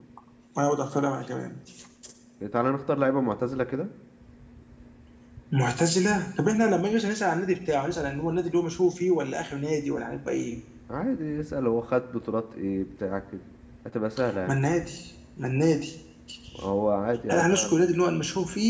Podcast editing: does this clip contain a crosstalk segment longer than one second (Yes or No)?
No